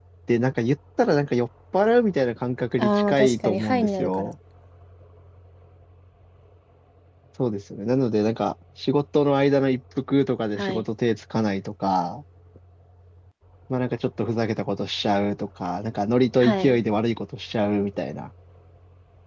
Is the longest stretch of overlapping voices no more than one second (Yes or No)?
No